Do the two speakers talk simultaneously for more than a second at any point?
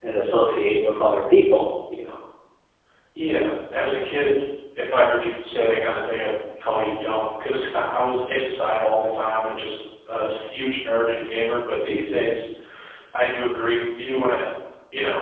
No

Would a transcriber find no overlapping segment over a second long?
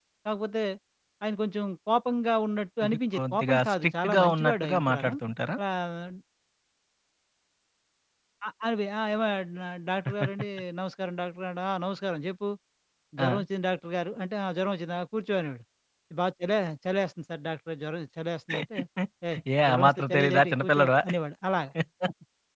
No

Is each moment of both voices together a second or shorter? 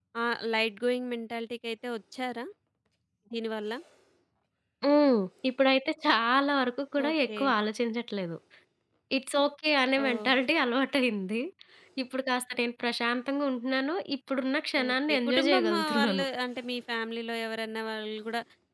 No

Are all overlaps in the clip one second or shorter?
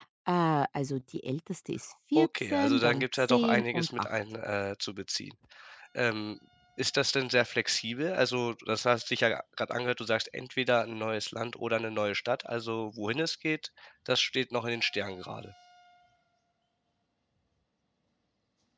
No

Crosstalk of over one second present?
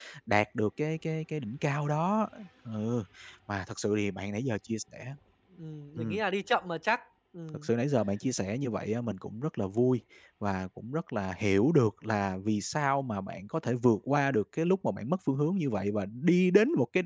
No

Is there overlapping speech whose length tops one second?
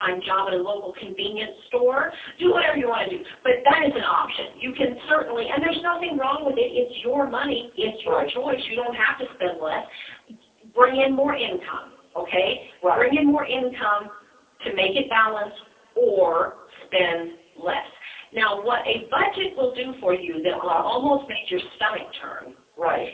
No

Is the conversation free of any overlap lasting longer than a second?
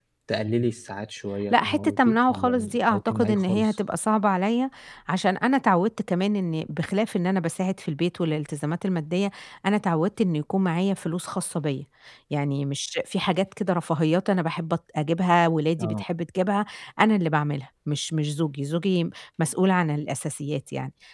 No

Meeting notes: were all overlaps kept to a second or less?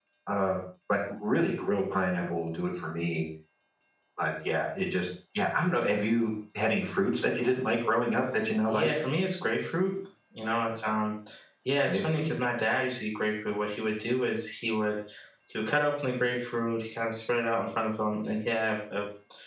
Yes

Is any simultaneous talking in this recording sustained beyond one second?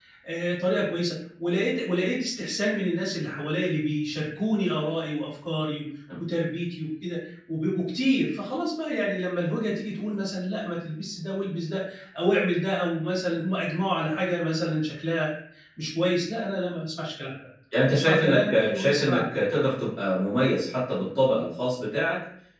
Yes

